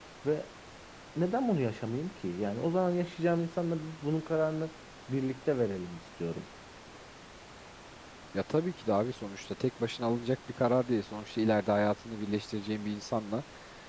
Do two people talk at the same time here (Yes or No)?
No